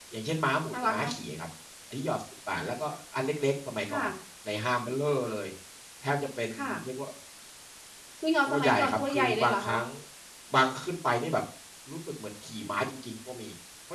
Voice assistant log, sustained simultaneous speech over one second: present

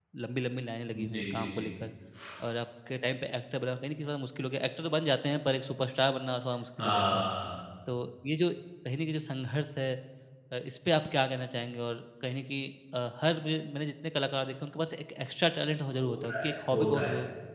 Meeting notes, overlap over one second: present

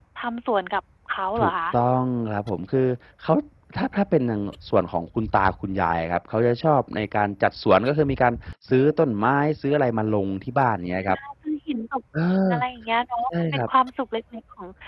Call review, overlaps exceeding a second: none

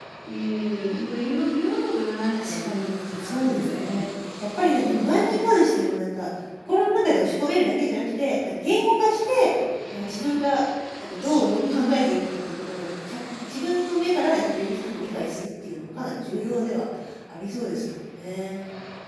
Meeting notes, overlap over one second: present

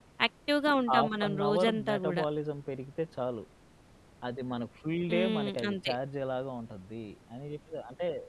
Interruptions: present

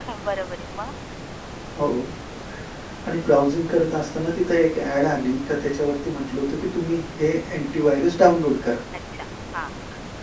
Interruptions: none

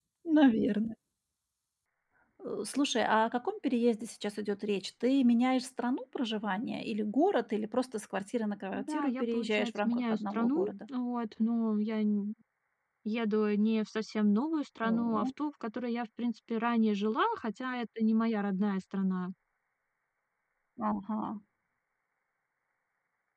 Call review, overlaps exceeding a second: present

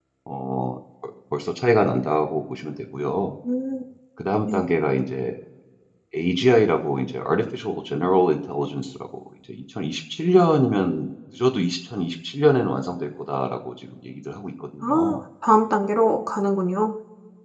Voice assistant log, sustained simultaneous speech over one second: none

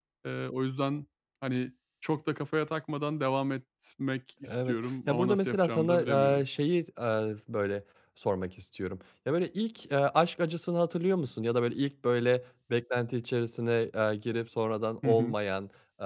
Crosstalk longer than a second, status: present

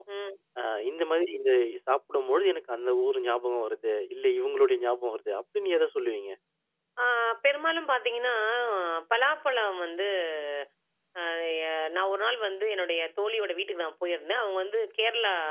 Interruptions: none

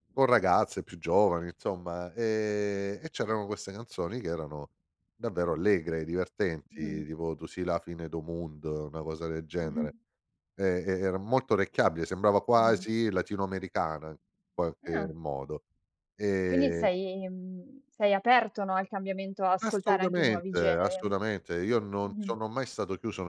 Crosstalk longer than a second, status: present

